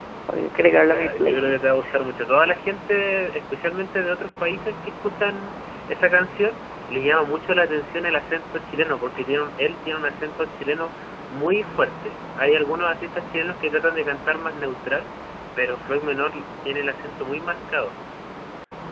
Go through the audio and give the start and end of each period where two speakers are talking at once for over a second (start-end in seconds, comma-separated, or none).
0.6-1.8